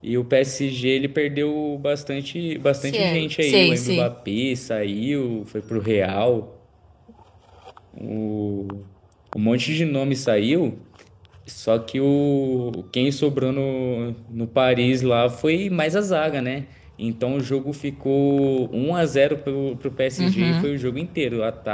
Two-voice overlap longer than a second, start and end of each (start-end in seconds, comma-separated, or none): 2.8-4.1